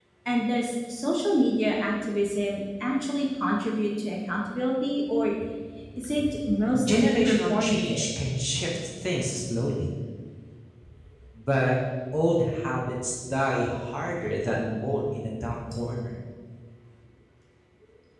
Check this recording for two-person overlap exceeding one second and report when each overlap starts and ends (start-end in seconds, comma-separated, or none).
6.8-8.0